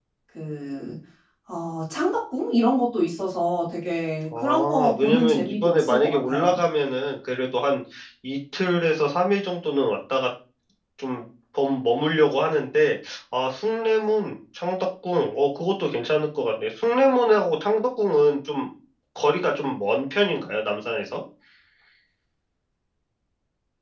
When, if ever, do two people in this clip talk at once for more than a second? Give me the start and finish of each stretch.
4.4-6.6

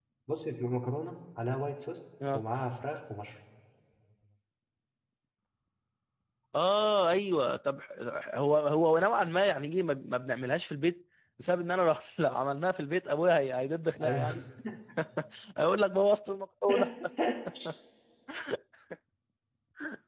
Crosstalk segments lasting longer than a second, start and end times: none

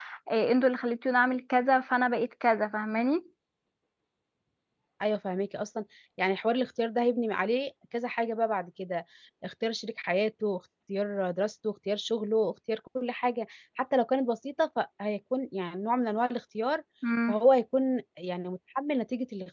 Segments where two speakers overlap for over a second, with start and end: none

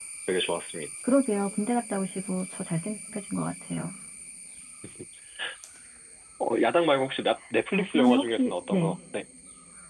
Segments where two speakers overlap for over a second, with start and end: 7.7-9.0

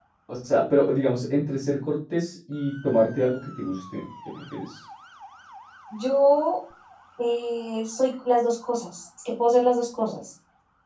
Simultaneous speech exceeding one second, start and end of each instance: none

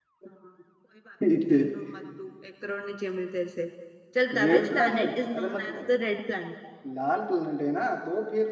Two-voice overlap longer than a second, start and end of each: 4.4-5.8

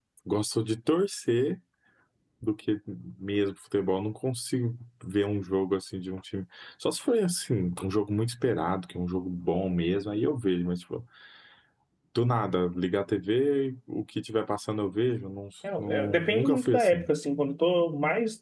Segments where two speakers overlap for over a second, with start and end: 15.8-17.1

